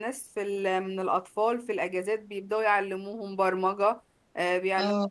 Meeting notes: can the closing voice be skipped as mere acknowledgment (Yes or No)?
Yes